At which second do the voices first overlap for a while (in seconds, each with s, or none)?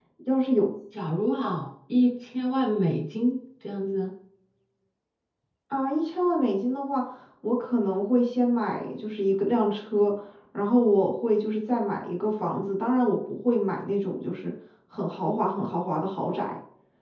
none